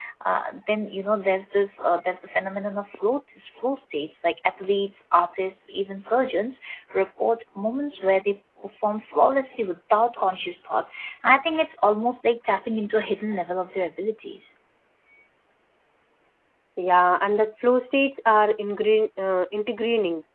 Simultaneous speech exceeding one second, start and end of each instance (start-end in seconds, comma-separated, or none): none